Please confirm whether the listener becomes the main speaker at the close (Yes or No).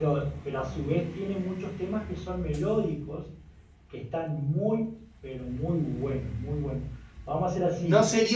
Yes